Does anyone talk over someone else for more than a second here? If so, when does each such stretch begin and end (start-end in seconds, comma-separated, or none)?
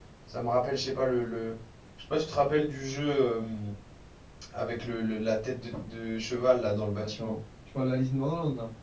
none